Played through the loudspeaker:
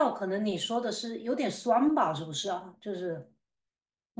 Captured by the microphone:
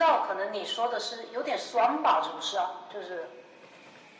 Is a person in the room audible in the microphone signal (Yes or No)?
No